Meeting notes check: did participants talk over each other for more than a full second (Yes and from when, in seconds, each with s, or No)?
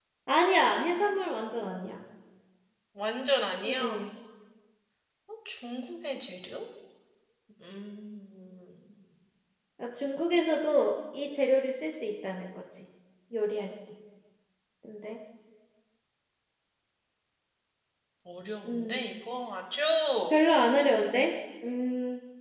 No